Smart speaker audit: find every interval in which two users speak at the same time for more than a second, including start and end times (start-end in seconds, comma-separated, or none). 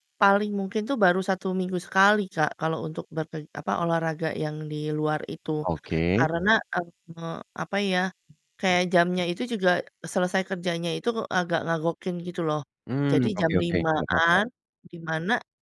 13.1-14.4